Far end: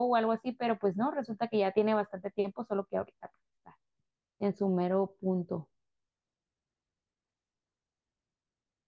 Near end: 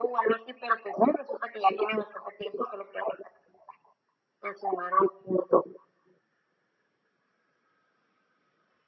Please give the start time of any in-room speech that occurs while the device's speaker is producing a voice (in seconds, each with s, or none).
none